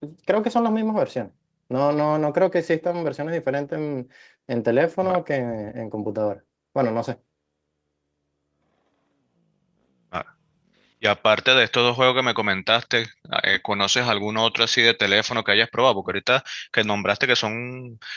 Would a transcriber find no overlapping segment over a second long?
Yes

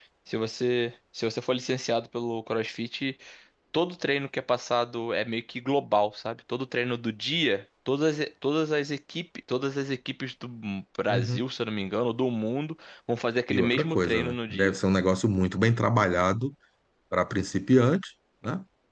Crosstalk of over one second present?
Yes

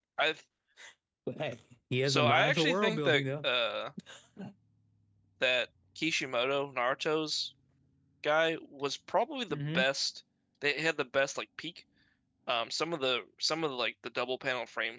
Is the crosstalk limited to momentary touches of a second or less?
No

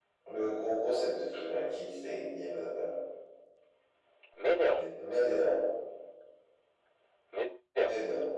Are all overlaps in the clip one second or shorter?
Yes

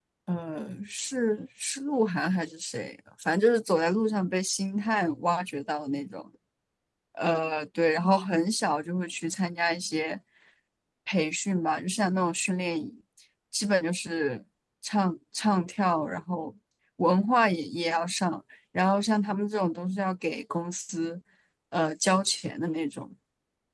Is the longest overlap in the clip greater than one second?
No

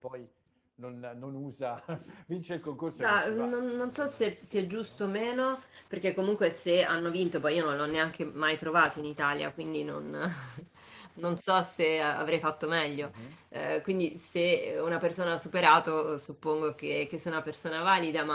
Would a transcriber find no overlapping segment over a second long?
No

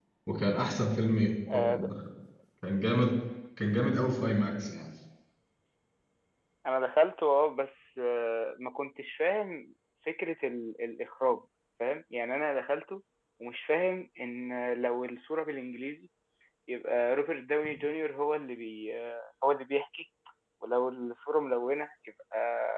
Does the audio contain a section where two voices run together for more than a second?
No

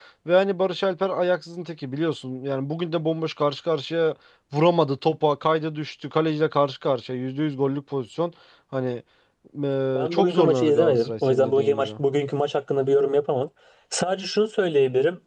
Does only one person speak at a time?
No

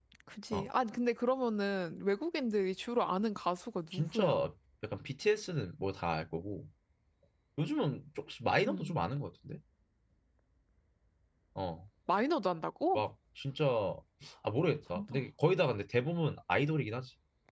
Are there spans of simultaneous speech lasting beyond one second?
No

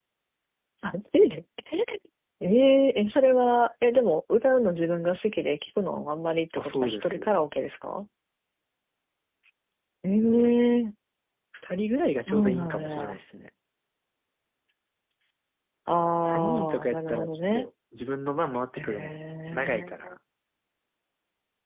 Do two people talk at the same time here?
Yes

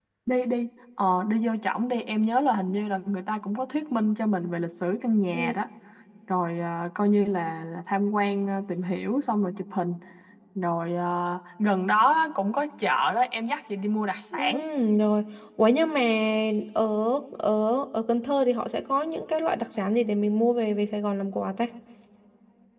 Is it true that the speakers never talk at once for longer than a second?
Yes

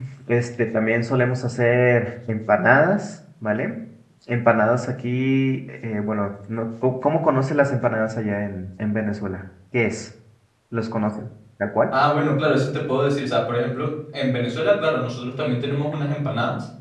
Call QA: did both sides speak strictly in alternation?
Yes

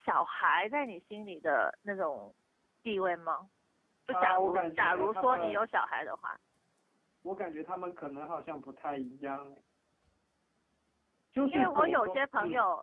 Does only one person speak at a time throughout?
No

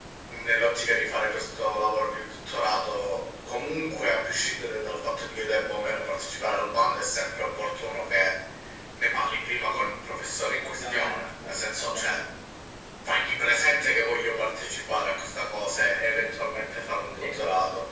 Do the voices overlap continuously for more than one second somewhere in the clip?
Yes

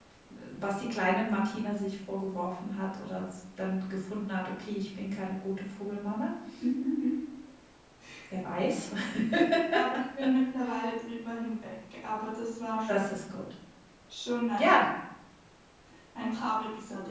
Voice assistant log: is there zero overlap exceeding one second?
Yes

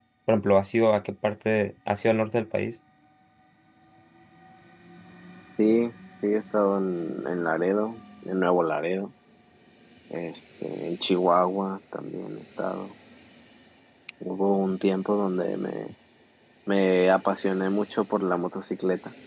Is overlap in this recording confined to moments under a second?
Yes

